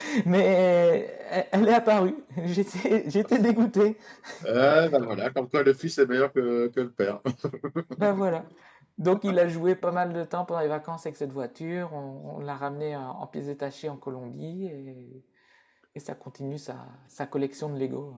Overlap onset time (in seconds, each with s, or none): none